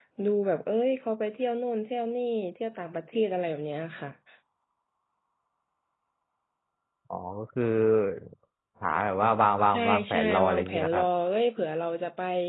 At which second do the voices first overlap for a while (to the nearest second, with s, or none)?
10 s